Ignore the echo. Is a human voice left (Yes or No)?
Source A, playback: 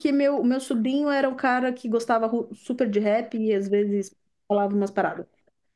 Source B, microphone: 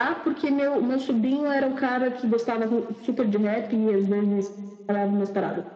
No